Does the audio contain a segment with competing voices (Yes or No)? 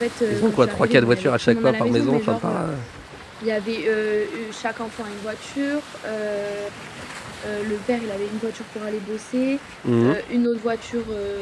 Yes